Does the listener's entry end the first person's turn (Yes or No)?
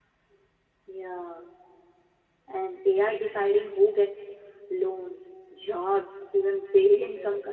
No